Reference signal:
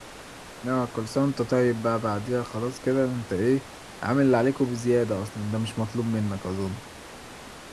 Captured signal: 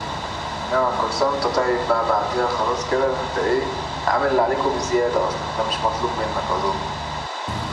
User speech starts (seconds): none

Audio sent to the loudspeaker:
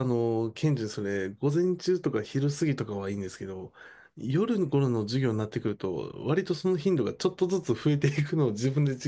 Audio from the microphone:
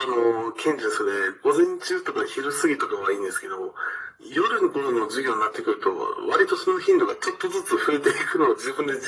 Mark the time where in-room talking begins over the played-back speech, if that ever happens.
none

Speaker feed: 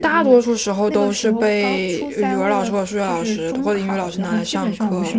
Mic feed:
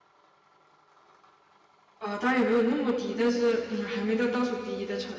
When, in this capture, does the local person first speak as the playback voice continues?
2 s

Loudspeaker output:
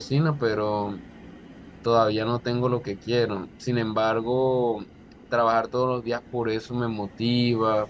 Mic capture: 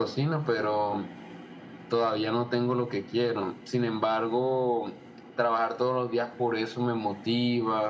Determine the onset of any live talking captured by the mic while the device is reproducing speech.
none

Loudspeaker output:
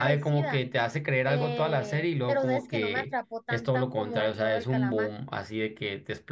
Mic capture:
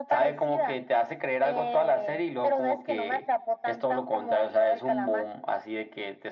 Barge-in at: none

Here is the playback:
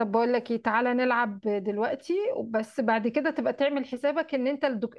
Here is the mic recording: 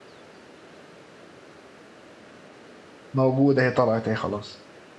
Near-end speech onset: 3 s

